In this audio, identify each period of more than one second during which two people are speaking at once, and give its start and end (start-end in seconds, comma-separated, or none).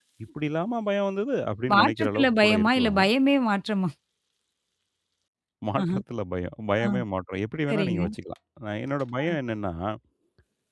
1.7-3.0